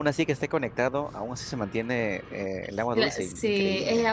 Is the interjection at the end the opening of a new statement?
Yes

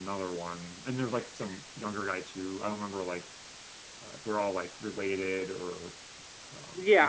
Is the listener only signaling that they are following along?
No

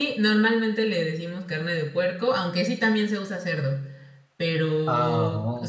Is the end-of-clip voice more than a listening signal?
No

